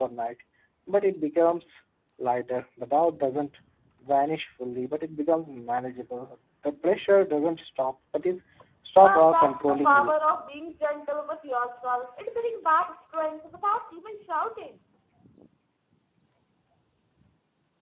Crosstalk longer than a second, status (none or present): present